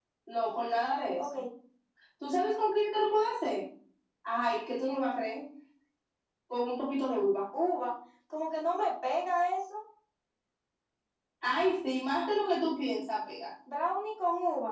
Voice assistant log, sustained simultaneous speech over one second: none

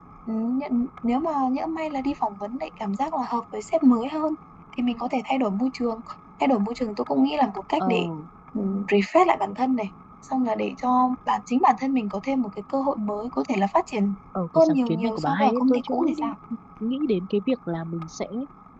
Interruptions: present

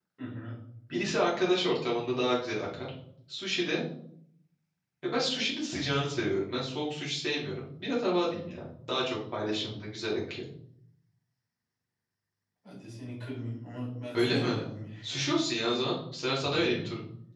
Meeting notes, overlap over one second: none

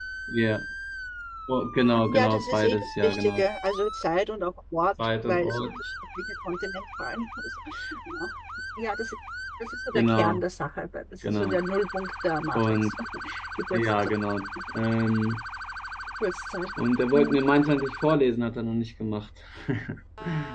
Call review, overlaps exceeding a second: present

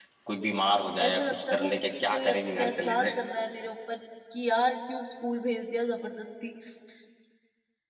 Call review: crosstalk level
present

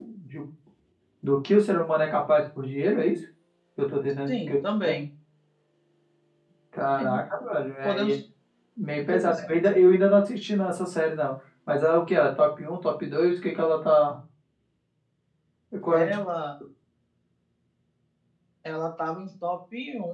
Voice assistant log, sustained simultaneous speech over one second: none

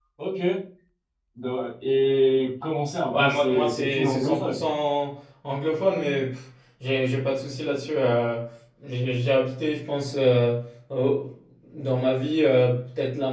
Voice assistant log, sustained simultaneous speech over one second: present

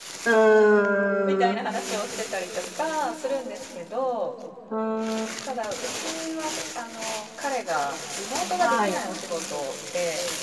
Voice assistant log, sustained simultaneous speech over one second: none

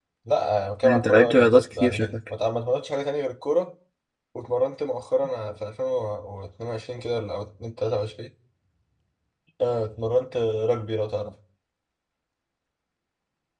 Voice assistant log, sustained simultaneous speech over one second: present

